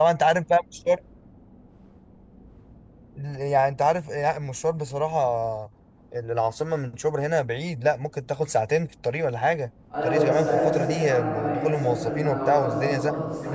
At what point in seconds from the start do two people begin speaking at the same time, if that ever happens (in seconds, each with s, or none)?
9.9 s